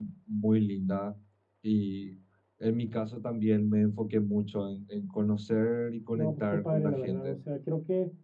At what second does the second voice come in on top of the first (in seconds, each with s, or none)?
6.2 s